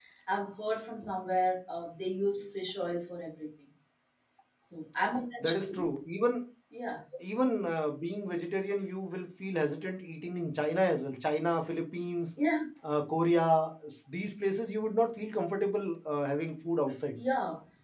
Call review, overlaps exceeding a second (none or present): none